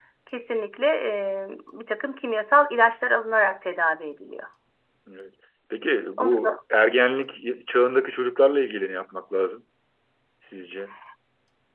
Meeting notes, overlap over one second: none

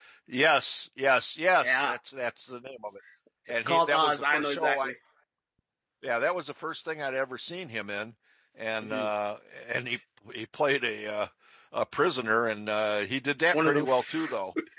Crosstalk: present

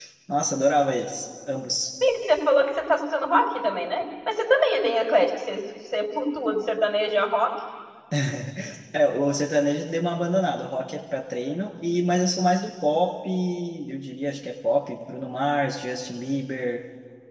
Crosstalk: none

